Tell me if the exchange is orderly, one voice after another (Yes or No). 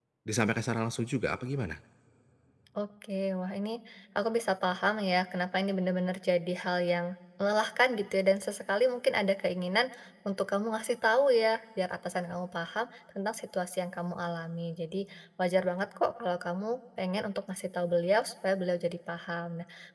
Yes